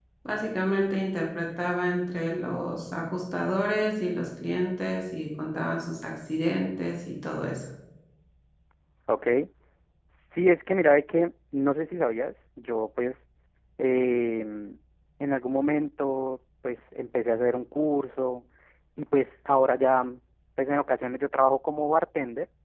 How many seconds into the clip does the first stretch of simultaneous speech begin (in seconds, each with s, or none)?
none